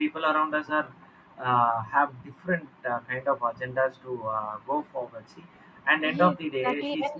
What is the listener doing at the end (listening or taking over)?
taking over